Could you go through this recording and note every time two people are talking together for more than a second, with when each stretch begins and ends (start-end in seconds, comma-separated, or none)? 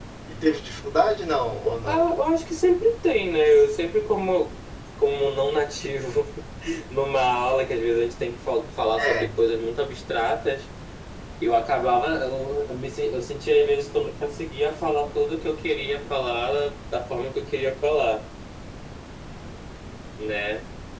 none